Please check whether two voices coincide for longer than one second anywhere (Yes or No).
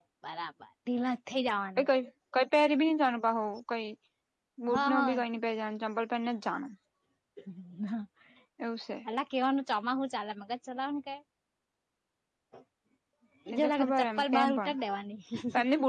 Yes